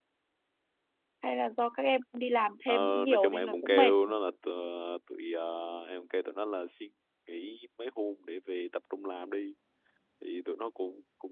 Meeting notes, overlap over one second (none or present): present